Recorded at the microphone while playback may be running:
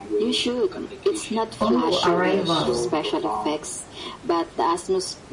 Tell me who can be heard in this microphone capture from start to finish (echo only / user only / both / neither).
both